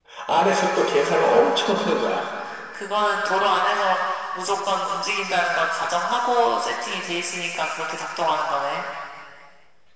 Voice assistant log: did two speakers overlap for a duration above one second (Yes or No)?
Yes